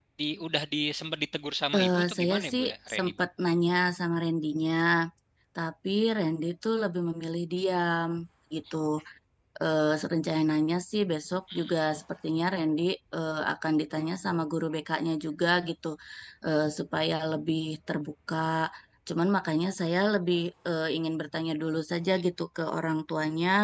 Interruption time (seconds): 1.7 s

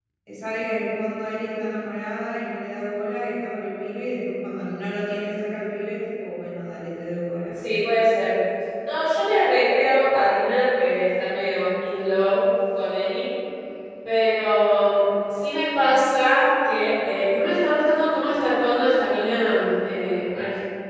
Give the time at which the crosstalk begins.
none

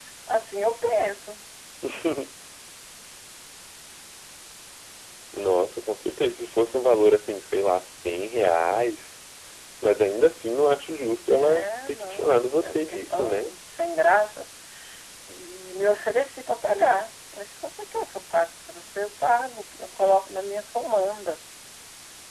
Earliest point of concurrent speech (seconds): 11.3 s

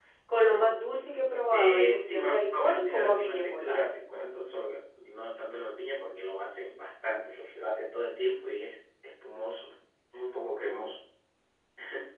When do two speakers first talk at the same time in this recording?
1.5 s

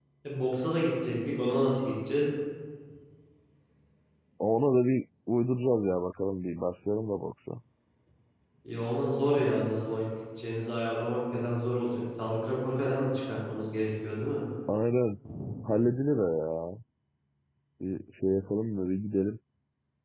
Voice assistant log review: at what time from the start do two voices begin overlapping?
none

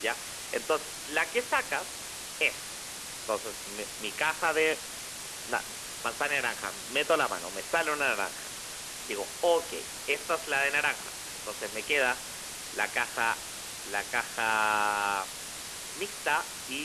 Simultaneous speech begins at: none

